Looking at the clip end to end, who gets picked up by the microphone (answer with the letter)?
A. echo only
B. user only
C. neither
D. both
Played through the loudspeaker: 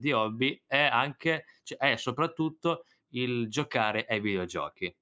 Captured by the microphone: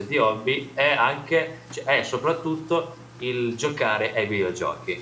A